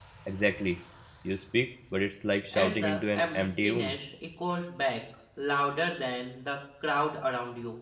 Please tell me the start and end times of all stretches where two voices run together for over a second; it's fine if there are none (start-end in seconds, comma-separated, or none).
2.5-4.0